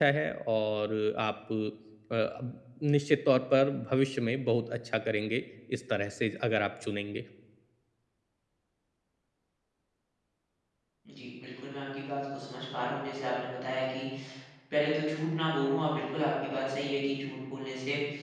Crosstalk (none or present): none